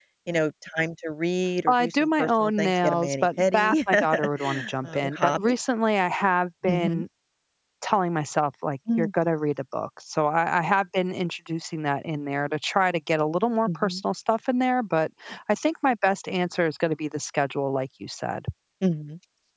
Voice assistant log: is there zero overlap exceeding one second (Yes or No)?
No